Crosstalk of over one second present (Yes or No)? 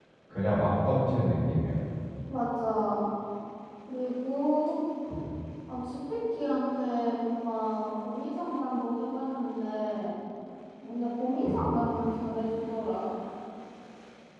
No